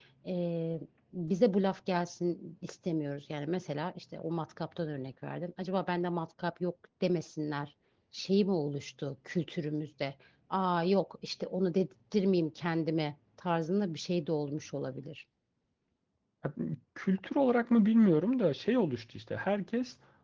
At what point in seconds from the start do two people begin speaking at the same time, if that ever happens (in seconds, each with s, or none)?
none